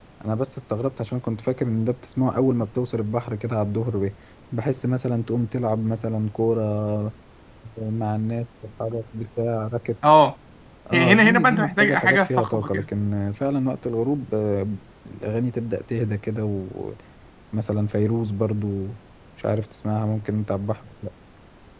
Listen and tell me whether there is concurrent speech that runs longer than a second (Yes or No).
Yes